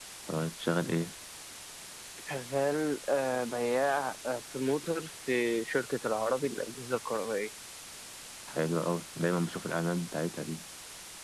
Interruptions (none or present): none